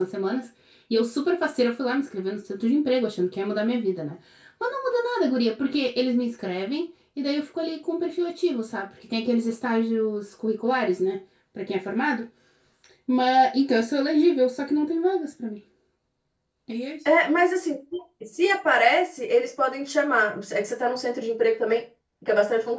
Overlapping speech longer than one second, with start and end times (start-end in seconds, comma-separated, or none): none